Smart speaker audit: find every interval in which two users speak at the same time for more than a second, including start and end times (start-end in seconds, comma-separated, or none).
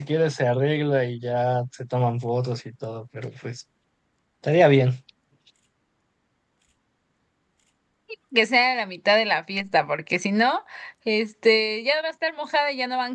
none